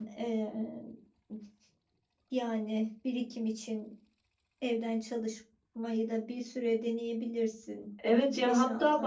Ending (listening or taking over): taking over